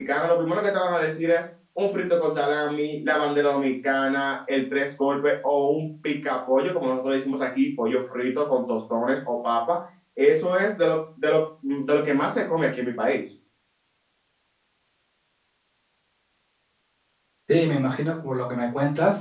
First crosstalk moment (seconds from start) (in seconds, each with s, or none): none